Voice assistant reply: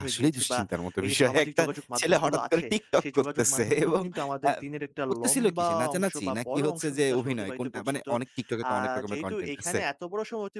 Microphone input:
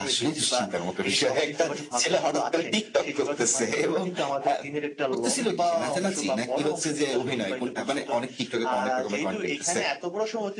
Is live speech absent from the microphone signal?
Yes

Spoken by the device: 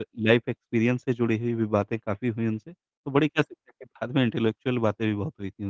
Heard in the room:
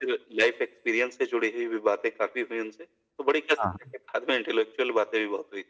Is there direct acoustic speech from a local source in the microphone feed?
Yes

